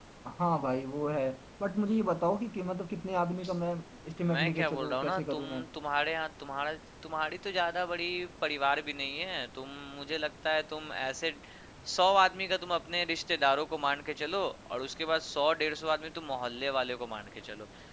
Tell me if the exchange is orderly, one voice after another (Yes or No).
No